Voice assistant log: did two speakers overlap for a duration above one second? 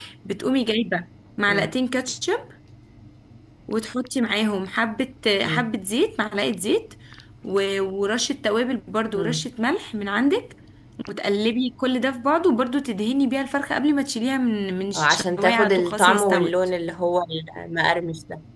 Yes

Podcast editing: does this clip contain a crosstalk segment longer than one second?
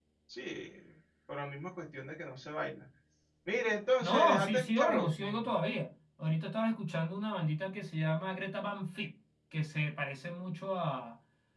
Yes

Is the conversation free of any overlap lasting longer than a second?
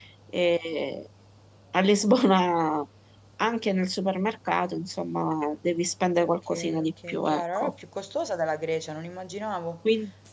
No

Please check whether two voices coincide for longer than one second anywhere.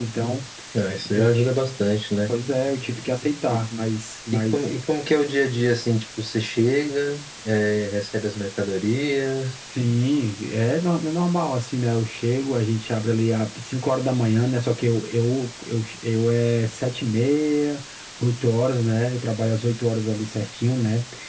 No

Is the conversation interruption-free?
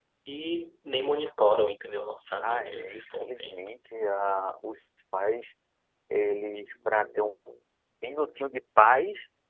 No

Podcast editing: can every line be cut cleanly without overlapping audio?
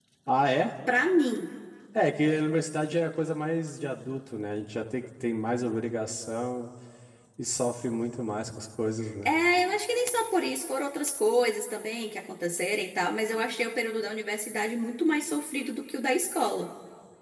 Yes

